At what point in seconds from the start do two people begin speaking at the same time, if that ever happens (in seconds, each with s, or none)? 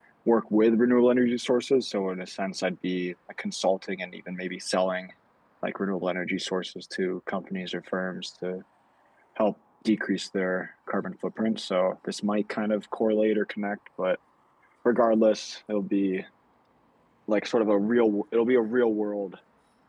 none